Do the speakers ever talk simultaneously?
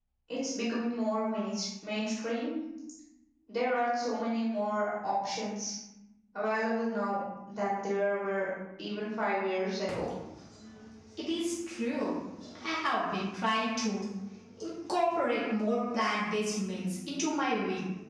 No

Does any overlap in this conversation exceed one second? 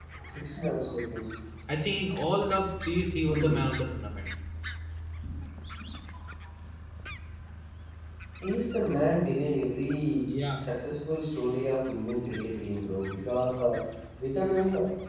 No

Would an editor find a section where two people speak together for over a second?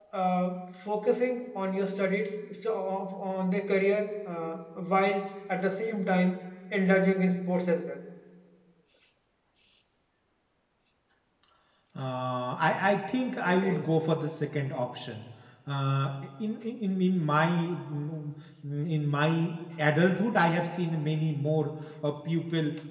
No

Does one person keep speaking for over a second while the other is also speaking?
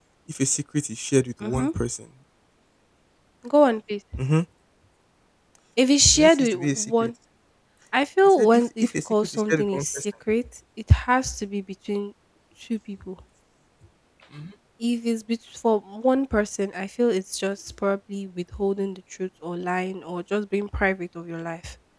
Yes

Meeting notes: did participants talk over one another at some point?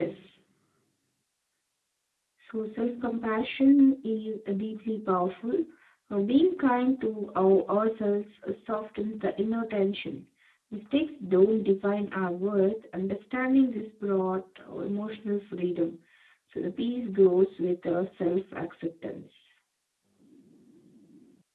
No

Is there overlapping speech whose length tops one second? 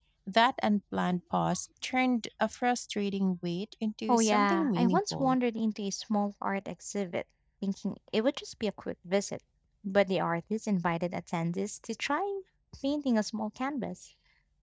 Yes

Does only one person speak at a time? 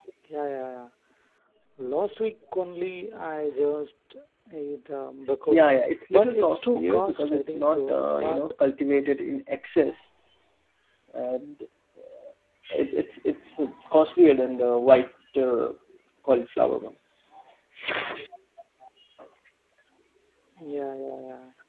No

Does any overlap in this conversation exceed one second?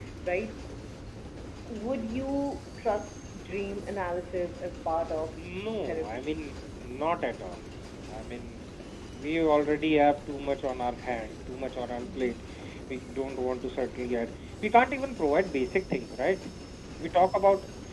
No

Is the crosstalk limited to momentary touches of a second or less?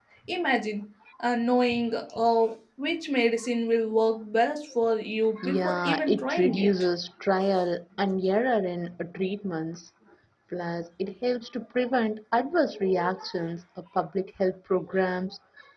No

